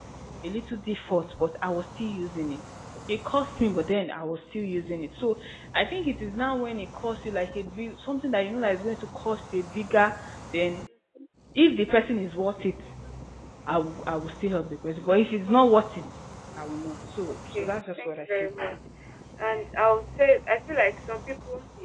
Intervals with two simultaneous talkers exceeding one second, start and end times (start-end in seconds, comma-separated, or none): 17.3-18.5